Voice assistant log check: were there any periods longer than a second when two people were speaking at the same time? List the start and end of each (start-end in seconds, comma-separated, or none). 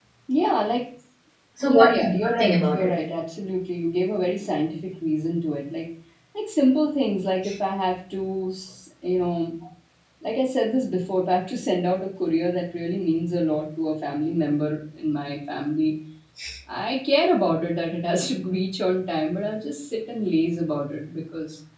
1.6-3.0